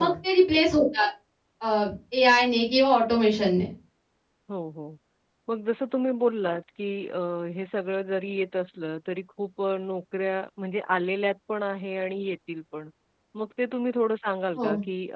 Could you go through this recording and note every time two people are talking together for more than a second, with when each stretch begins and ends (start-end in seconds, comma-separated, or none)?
none